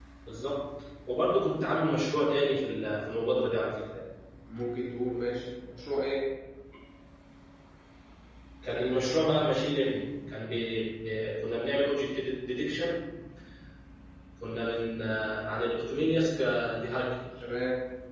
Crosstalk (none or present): none